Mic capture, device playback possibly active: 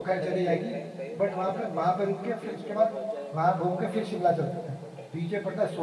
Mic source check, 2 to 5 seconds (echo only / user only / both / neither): both